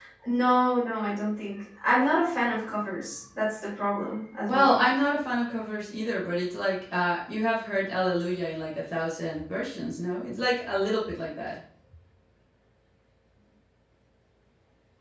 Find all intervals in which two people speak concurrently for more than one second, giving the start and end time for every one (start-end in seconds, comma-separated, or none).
none